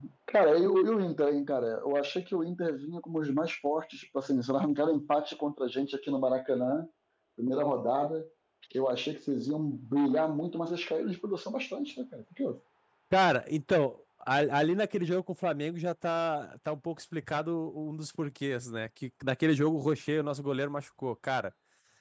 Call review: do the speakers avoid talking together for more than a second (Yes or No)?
Yes